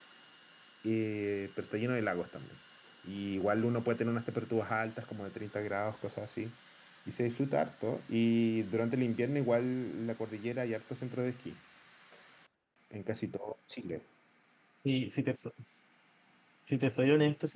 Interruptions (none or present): none